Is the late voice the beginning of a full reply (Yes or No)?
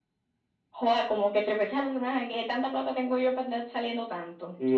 Yes